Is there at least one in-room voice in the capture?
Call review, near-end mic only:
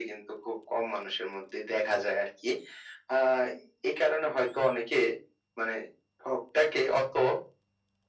No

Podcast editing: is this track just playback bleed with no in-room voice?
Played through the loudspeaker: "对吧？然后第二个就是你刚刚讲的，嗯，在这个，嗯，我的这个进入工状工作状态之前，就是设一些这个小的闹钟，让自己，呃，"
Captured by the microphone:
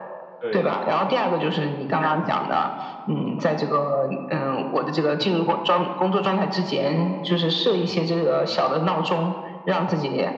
No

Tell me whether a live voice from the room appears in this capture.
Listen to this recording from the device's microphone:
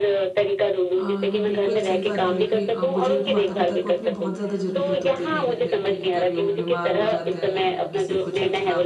Yes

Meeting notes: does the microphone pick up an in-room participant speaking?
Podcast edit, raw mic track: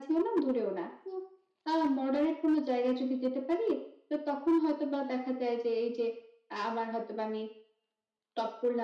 No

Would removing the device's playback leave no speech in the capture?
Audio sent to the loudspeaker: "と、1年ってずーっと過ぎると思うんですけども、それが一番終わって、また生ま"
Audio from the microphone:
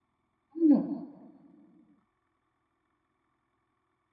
No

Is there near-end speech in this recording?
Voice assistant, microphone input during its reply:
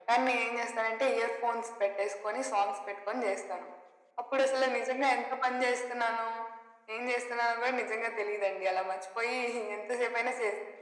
No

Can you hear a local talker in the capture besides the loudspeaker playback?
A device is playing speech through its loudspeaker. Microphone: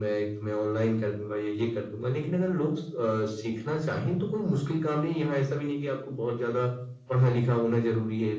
No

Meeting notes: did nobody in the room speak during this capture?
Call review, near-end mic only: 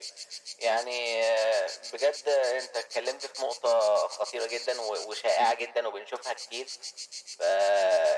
Yes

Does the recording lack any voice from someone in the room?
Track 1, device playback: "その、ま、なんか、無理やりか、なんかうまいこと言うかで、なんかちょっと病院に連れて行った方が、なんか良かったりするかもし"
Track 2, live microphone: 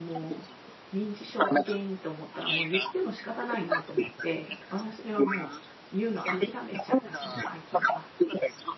No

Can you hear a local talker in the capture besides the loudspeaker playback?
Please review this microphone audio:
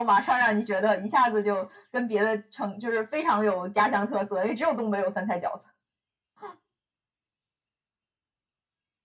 No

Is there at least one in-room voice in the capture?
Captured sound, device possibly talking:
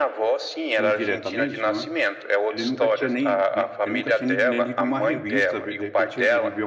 Yes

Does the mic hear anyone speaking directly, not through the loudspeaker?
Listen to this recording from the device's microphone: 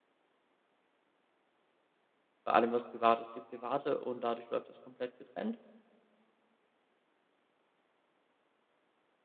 Yes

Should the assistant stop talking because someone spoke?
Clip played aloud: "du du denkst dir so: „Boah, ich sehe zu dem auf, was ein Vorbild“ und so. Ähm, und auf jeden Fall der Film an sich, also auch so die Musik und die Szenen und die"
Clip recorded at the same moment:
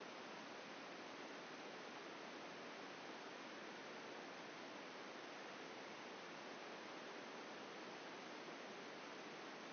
No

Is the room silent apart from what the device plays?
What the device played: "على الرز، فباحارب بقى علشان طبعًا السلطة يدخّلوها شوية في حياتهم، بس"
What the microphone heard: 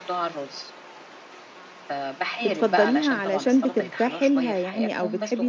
No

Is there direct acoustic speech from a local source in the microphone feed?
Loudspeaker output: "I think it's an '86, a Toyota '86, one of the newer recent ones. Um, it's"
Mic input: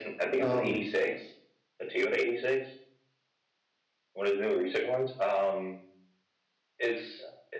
Yes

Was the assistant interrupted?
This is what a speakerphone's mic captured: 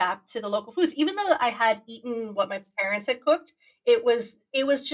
No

